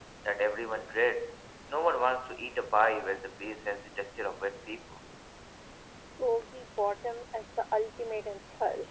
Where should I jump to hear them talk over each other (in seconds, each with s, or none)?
none